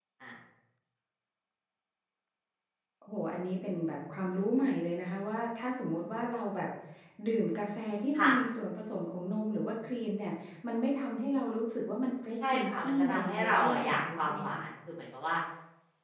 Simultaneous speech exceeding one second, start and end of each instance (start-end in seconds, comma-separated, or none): 12.5-14.6